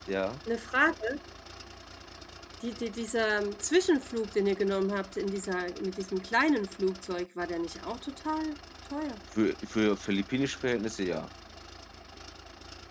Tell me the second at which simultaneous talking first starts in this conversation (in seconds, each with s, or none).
none